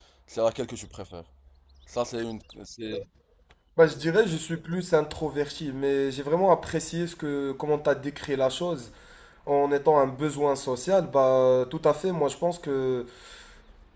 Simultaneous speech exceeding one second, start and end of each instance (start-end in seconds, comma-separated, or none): none